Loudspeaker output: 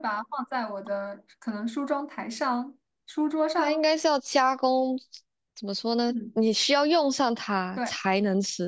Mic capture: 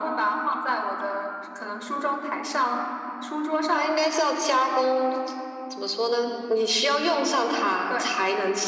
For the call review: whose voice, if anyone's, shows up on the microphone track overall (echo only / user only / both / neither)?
echo only